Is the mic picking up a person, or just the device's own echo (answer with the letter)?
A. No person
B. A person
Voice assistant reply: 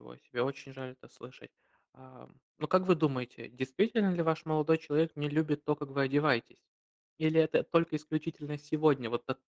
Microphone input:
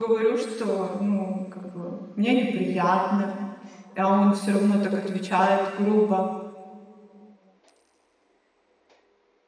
B